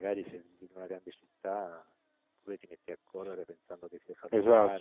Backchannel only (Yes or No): No